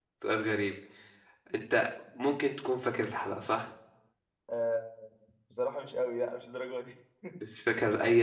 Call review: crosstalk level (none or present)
none